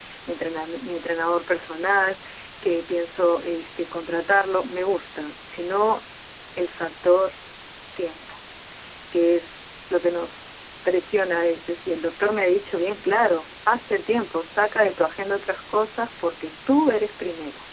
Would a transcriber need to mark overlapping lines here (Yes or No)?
No